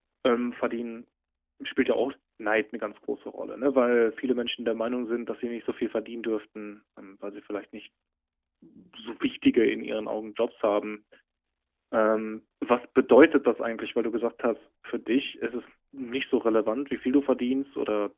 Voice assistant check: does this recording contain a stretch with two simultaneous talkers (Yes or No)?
No